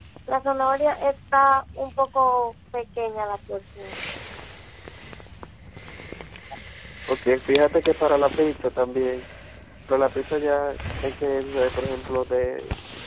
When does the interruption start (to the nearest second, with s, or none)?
none